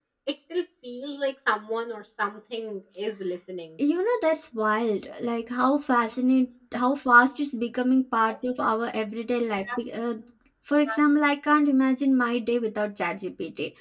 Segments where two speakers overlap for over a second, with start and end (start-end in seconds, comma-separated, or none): none